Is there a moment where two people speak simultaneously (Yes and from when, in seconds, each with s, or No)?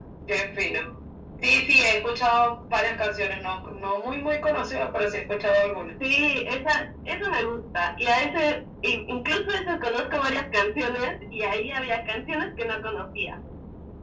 No